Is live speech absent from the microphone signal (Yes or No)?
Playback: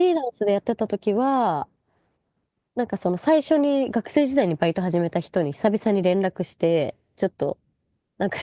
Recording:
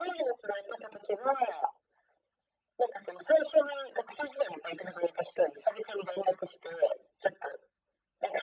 Yes